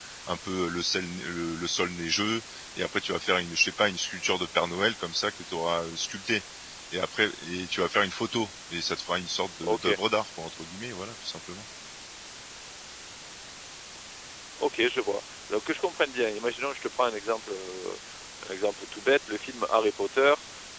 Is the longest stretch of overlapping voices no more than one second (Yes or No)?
Yes